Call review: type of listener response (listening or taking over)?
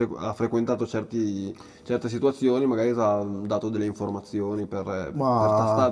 listening